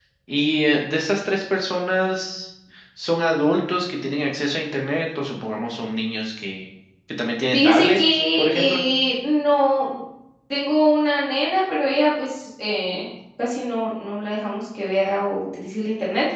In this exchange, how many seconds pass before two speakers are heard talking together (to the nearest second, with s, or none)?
8 s